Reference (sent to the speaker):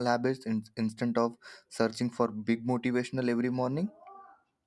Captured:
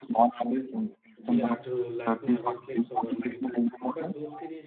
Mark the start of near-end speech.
1 s

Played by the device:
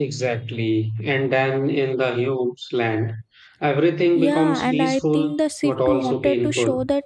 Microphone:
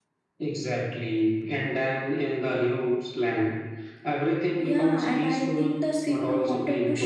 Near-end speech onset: none

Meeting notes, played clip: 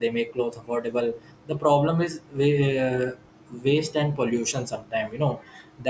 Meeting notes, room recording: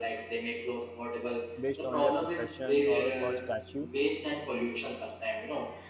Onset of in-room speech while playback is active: 2 s

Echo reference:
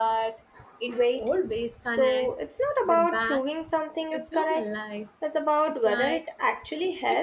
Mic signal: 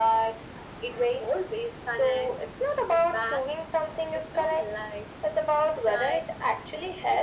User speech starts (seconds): none

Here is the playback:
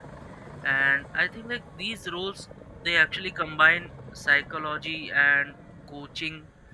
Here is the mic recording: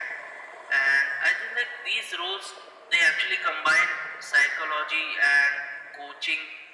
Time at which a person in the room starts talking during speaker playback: none

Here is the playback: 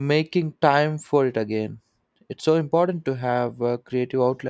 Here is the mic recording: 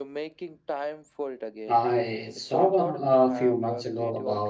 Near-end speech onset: 2 s

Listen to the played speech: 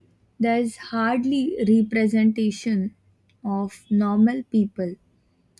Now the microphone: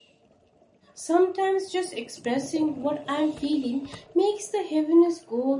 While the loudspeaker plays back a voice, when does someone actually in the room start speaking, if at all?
1 s

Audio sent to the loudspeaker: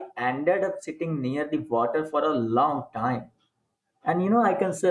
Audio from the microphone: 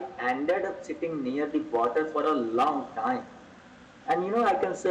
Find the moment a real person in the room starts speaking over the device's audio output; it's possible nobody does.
none

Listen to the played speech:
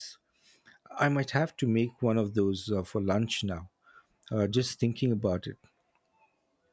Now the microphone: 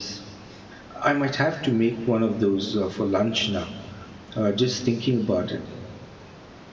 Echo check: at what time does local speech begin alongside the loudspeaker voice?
none

